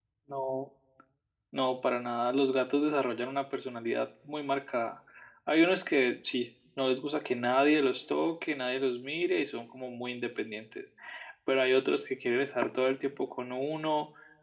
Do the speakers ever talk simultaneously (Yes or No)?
No